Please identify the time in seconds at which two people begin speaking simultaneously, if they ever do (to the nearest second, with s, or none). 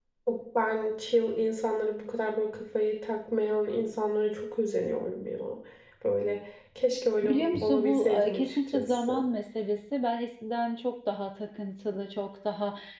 7 s